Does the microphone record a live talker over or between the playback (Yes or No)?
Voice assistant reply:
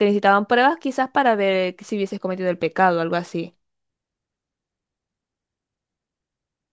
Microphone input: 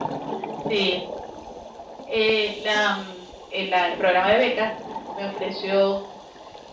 Yes